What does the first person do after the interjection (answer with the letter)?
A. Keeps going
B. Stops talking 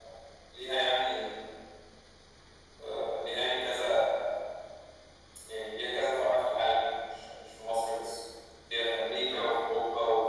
A